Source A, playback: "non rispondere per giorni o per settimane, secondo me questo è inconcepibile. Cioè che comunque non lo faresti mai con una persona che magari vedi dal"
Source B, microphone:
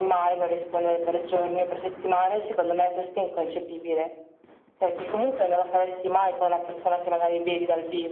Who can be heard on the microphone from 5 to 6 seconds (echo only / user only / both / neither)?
echo only